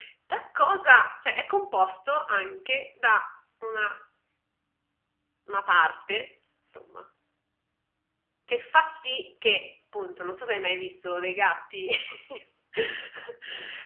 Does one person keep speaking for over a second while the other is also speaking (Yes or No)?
No